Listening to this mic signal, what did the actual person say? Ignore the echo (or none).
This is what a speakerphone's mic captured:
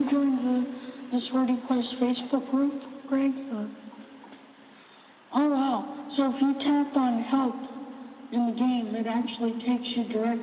none